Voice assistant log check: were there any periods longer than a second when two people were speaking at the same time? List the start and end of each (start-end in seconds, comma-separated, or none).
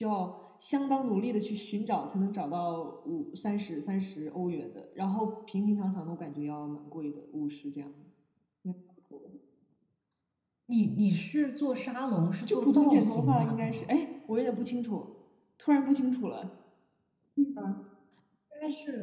12.5-13.9